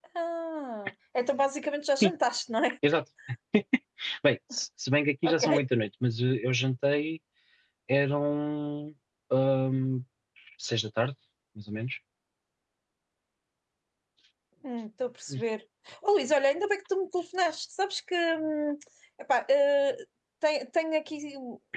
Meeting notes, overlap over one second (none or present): none